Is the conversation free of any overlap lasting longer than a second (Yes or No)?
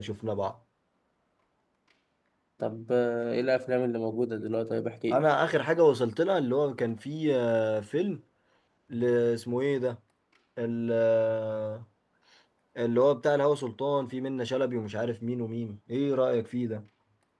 Yes